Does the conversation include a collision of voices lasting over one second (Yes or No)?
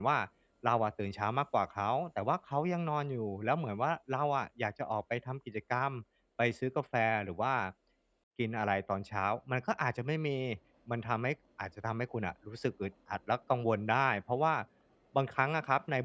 No